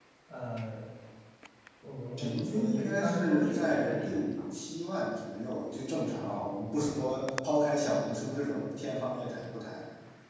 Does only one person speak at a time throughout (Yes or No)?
No